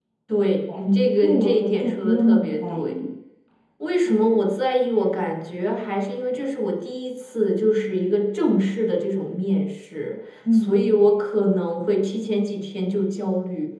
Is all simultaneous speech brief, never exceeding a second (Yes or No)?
No